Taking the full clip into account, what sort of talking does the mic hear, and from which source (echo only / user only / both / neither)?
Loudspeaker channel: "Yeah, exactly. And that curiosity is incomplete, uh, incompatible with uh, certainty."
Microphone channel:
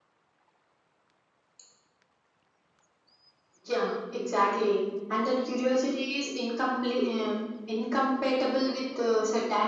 echo only